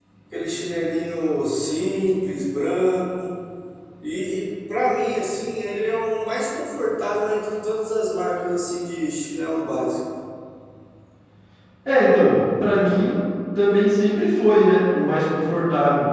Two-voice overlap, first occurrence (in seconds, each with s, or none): none